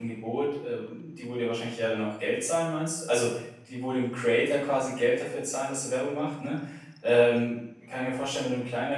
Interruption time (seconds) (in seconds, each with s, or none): none